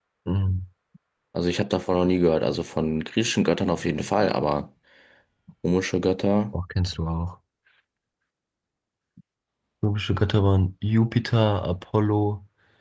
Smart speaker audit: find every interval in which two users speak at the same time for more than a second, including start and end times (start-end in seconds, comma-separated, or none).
none